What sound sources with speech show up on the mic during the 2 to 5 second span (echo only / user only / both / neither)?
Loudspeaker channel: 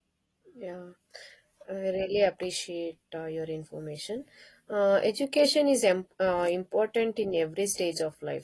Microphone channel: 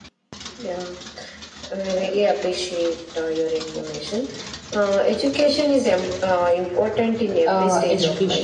echo only